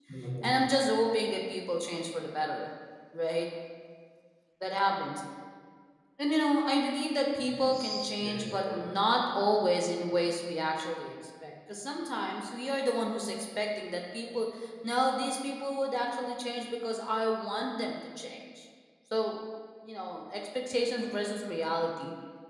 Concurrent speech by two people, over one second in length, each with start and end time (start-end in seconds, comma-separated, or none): 7.6-8.8